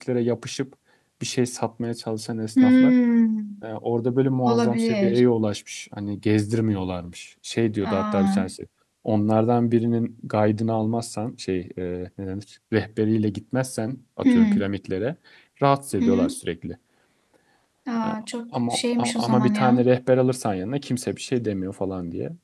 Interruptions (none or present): present